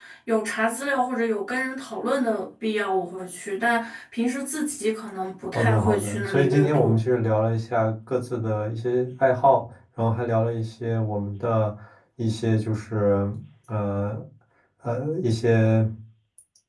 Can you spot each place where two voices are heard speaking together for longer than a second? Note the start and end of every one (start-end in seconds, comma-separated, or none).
5.5-7.0